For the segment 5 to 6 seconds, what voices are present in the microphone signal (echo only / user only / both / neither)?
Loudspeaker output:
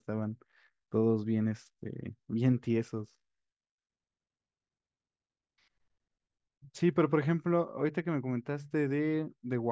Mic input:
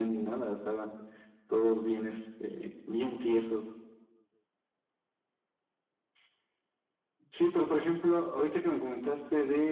neither